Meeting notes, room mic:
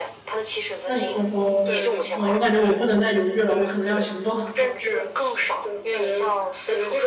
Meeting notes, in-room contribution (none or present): present